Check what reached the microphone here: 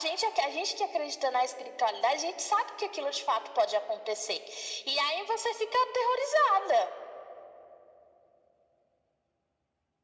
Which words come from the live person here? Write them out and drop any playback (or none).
none